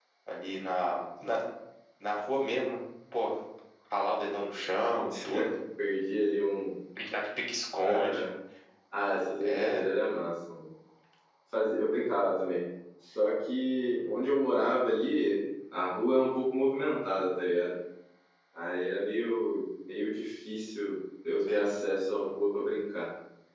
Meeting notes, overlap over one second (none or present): none